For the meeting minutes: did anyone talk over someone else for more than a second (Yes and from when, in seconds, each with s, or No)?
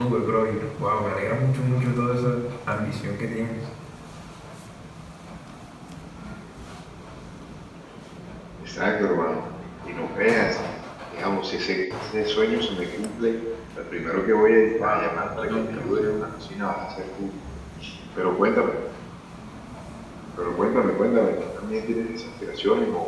Yes, from 14.8 s